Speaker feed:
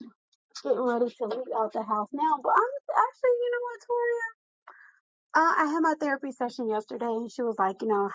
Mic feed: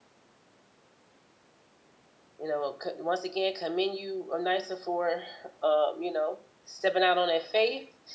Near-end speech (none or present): present